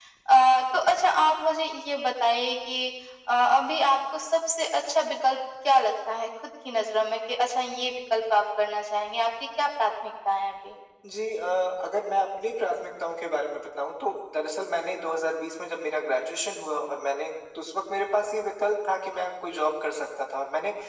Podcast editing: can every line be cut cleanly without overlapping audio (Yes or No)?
Yes